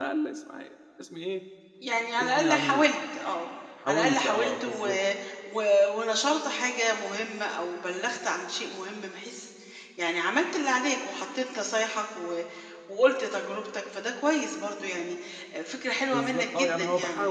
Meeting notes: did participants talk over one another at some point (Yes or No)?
Yes